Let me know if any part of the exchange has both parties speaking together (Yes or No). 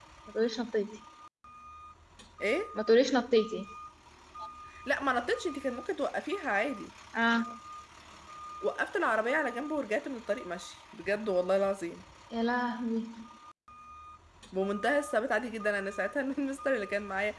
No